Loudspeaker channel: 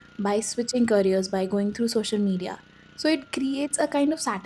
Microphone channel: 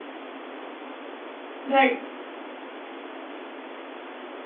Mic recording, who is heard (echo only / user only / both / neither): user only